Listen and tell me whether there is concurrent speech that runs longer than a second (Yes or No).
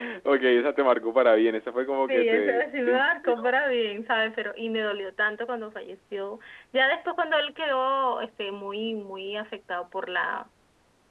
Yes